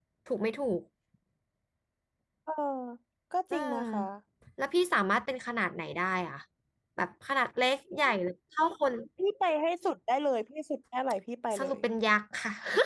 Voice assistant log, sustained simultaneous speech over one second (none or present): none